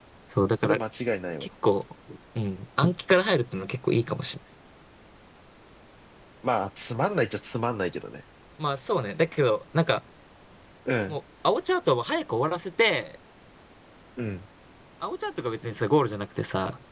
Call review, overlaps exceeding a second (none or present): none